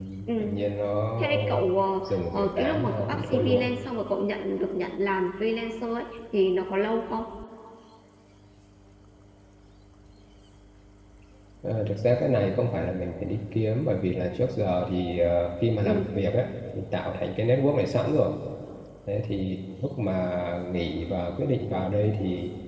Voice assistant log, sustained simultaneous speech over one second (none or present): present